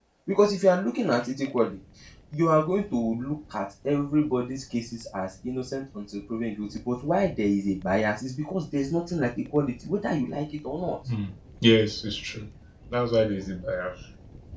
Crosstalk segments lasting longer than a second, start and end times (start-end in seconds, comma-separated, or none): none